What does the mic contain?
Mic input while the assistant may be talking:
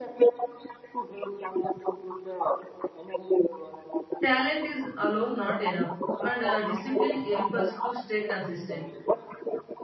both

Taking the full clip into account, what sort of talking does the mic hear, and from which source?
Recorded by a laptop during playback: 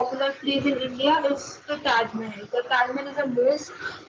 echo only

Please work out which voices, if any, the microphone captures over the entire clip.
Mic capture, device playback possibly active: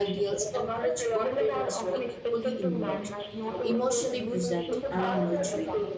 both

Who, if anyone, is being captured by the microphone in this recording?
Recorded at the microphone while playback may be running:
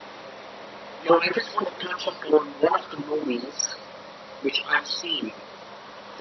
echo only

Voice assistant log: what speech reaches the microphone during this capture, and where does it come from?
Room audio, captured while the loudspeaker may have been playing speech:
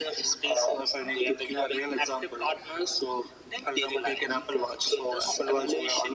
echo only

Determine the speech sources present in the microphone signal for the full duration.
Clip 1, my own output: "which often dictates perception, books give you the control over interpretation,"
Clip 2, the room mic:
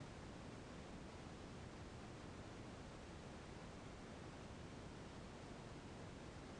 neither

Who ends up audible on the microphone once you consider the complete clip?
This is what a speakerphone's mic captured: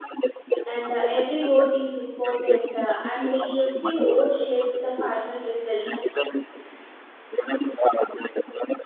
both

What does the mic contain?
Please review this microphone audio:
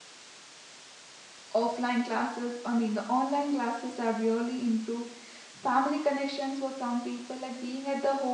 user only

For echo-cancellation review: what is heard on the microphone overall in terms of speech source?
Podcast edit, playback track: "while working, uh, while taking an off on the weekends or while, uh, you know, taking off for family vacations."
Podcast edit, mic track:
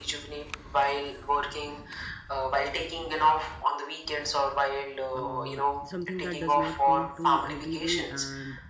both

